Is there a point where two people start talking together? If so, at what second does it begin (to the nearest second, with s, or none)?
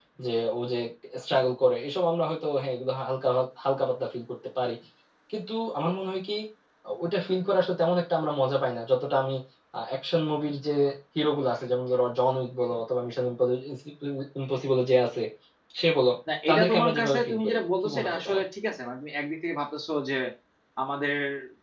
16 s